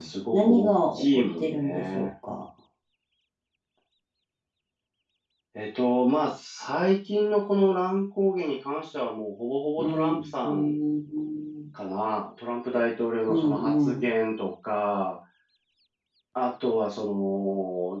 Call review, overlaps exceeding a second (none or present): present